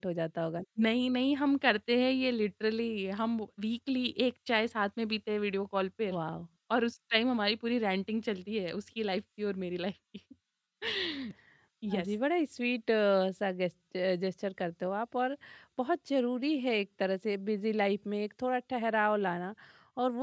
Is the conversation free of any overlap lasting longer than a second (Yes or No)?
Yes